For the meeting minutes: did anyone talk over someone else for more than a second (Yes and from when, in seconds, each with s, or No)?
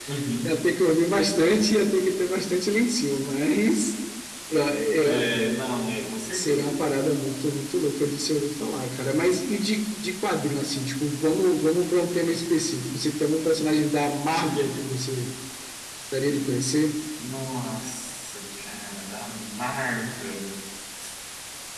No